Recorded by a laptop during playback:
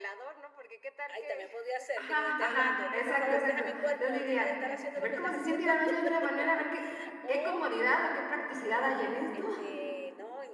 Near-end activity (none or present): present